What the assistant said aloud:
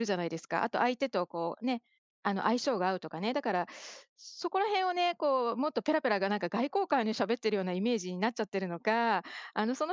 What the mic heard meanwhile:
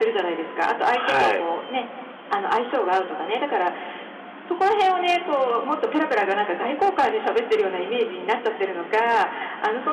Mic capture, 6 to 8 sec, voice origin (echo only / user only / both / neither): echo only